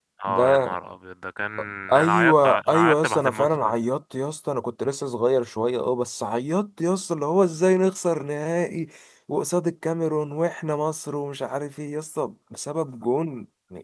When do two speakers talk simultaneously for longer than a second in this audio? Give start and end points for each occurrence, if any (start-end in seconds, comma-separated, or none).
2.0-3.7